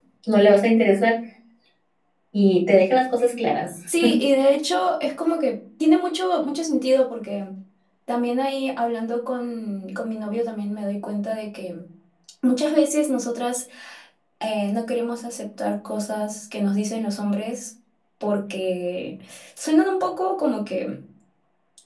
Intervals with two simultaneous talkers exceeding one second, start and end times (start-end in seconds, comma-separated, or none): none